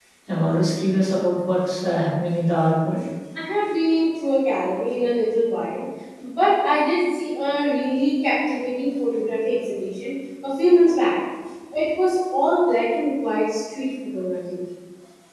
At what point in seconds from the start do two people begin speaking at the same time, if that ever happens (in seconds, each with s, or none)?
none